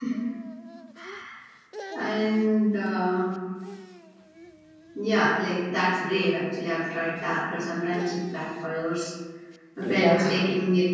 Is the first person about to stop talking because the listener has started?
No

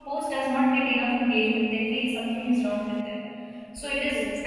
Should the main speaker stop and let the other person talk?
No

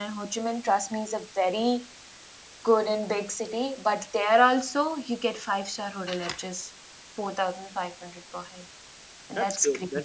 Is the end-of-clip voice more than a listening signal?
Yes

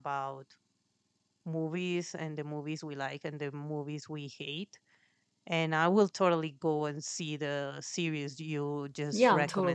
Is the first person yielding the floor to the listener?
Yes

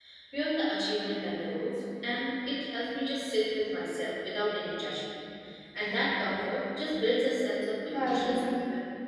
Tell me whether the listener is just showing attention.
No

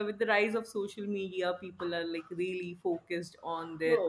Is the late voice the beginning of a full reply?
Yes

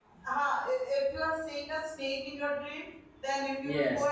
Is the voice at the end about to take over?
No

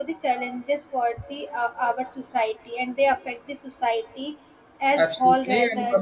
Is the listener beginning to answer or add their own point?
Yes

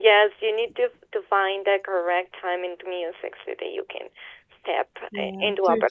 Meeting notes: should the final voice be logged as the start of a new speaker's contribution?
Yes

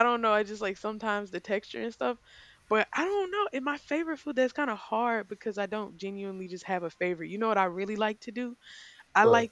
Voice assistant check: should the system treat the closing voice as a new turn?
No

